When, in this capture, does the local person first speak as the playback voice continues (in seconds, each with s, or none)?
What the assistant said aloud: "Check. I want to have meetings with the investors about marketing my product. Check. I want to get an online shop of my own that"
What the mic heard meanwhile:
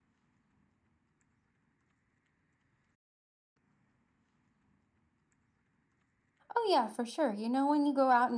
6.5 s